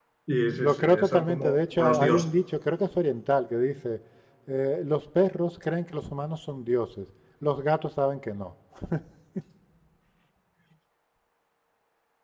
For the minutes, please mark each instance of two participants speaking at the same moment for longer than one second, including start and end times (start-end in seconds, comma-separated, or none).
0.6-2.3